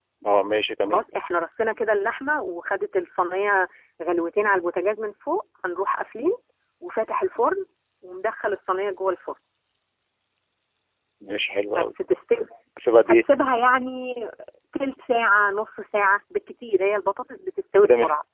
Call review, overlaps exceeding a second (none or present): none